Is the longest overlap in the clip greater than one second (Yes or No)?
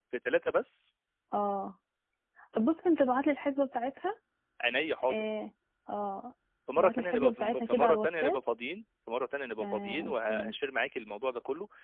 Yes